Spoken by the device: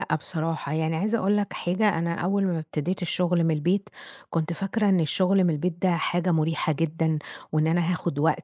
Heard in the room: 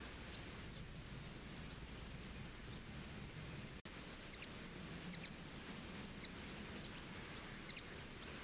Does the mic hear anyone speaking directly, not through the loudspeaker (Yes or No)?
No